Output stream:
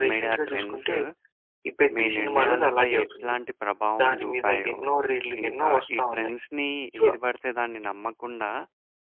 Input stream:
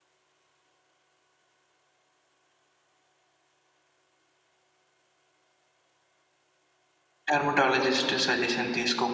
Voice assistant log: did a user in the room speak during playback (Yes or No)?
Yes